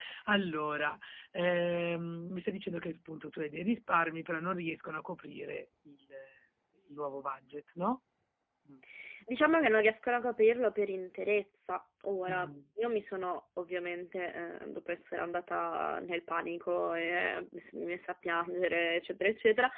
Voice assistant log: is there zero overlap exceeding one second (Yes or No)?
Yes